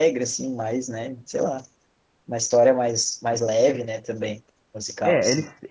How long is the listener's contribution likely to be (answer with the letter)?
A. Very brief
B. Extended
B